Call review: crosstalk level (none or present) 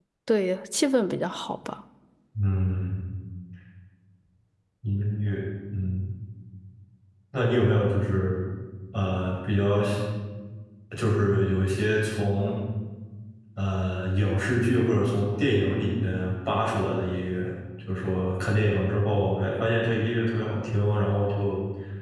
none